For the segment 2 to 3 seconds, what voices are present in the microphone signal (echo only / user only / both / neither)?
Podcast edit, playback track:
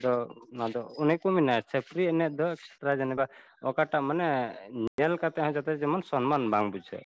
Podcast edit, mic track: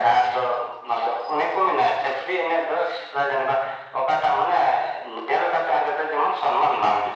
echo only